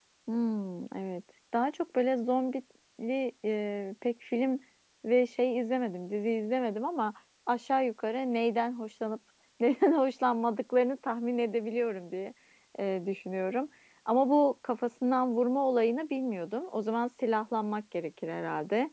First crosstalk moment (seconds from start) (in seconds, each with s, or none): none